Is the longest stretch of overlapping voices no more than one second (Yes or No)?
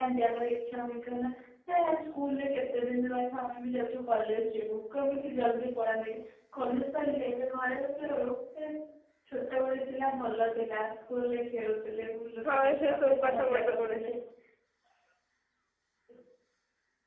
No